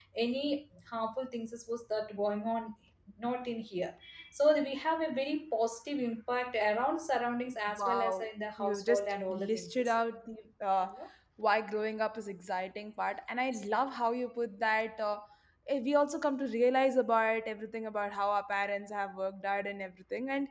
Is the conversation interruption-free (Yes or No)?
No